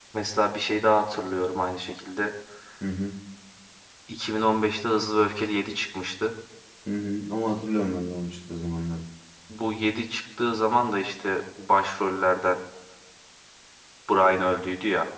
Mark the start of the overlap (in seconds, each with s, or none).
none